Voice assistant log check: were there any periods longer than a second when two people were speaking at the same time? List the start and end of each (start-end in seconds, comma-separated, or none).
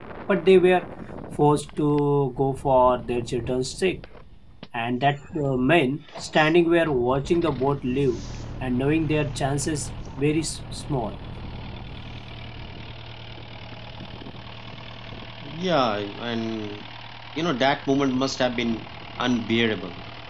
none